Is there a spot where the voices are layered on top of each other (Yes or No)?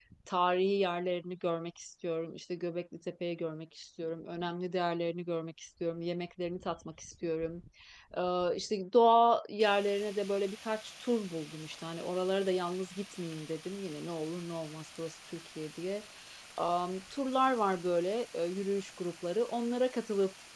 No